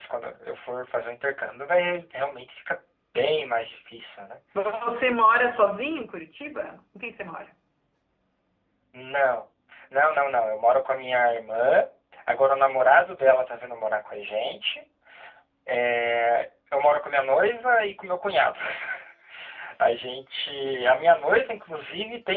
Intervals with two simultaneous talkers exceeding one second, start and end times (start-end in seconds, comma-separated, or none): none